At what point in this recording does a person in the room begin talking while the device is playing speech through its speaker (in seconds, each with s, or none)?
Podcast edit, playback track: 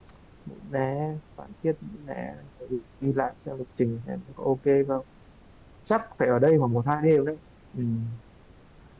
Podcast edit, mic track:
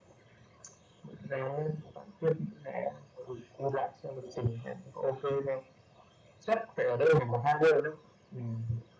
none